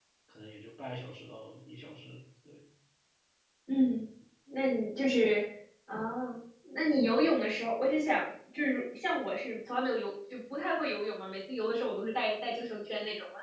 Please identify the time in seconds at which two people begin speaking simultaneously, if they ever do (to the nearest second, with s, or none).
none